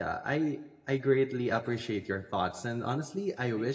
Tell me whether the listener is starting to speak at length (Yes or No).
No